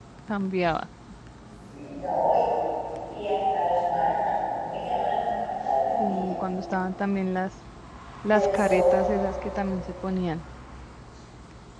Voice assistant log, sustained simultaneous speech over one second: none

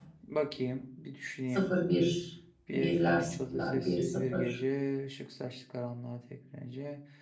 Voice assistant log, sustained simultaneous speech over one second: present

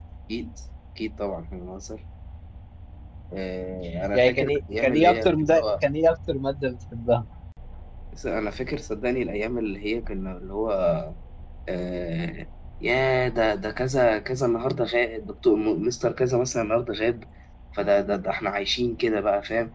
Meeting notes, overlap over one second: present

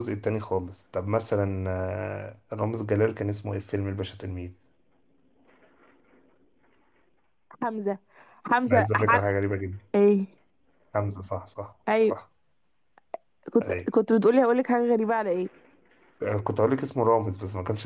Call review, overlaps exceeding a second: none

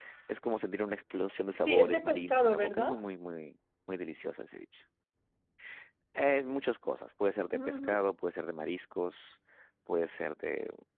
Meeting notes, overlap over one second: present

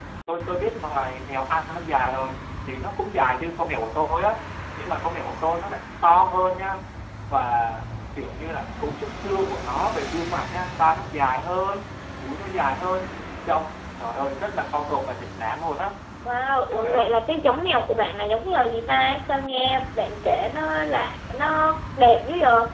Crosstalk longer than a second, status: none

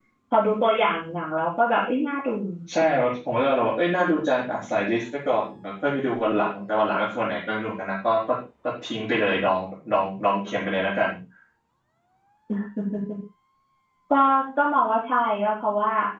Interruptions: none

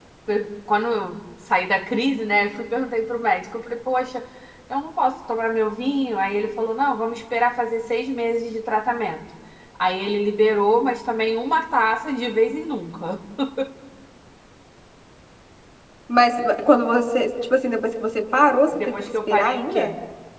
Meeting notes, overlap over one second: present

